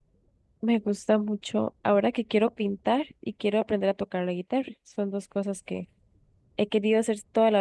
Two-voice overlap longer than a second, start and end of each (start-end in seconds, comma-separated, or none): none